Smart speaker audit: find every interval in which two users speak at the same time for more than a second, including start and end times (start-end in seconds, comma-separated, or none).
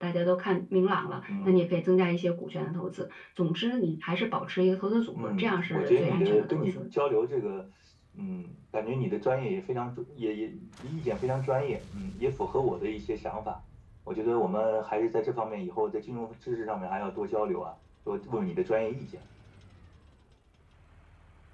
5.2-6.8